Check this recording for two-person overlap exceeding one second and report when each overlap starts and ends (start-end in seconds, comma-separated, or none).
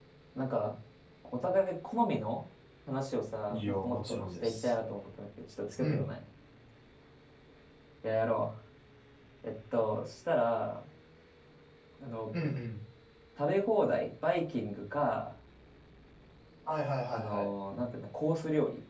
3.5-4.7